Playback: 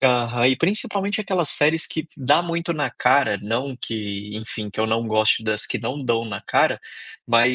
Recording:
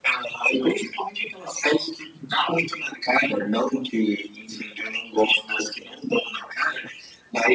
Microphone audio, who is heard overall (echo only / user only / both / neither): echo only